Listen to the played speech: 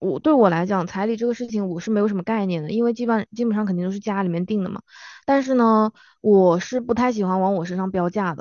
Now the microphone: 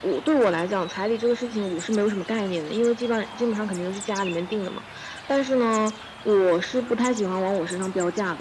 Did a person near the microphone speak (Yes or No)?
No